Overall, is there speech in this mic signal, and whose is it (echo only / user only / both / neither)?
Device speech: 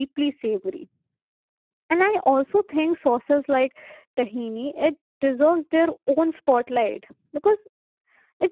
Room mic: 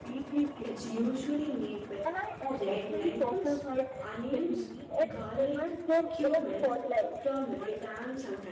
both